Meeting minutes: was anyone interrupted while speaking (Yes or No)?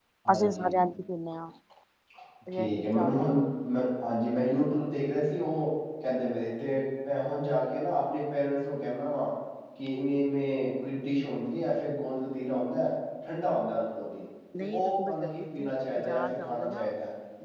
Yes